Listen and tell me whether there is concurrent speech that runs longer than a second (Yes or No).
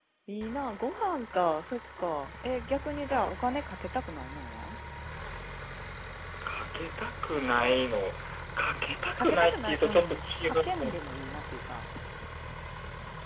Yes